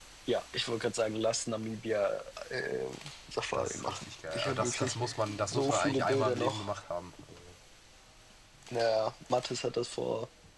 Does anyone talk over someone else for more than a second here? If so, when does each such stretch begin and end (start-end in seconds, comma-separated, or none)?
3.5-5.0, 5.5-6.7